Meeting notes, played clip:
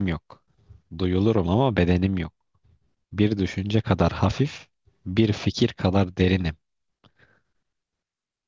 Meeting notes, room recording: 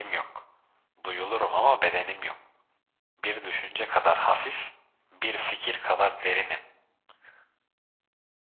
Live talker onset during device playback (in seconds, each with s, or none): none